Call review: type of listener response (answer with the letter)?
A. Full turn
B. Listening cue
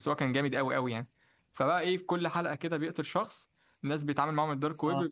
B